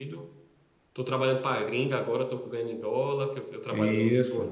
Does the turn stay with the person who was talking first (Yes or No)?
Yes